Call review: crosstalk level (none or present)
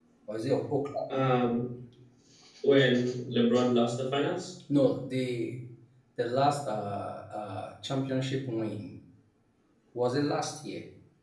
none